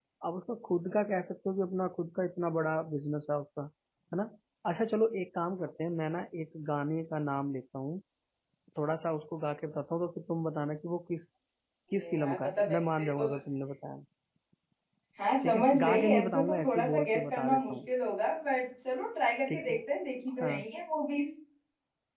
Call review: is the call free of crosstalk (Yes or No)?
No